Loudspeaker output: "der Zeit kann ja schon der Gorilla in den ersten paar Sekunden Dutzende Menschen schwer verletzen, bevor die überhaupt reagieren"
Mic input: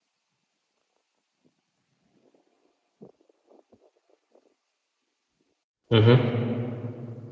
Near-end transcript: Mhm.

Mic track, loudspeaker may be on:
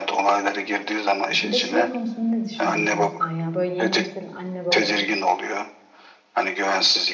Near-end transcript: E, Bir de şey konusunda ne düşünüyorsun sen ya? Böyle yeni nesil anne babalar

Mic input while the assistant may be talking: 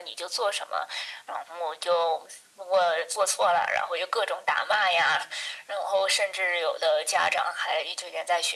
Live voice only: none

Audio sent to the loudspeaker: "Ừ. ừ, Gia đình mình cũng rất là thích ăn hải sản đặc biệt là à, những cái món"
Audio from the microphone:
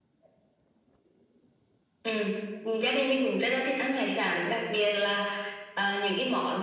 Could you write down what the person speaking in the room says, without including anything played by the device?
none

